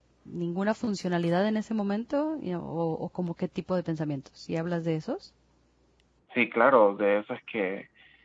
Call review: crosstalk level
none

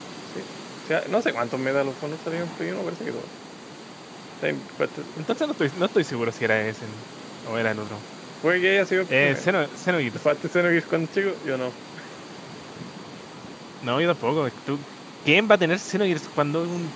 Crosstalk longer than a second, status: none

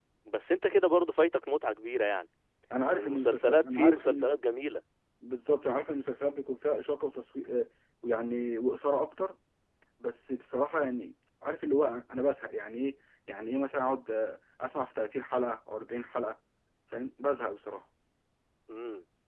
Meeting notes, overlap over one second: present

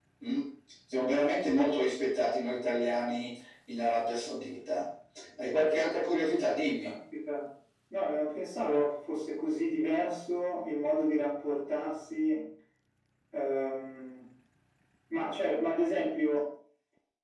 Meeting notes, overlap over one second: none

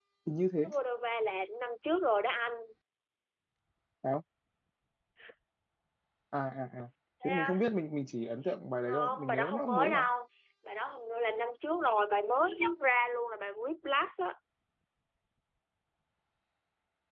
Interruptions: present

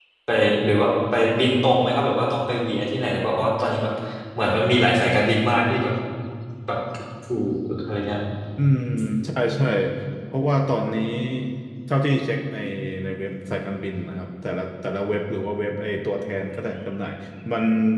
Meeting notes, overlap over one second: none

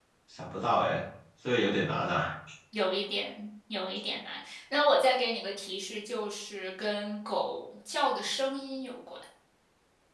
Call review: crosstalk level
none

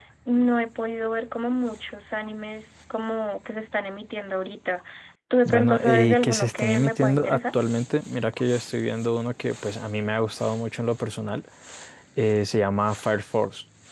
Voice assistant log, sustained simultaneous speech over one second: present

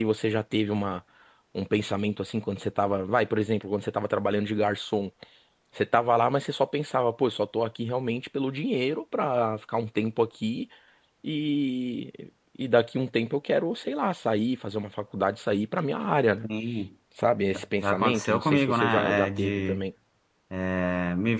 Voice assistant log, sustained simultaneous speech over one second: present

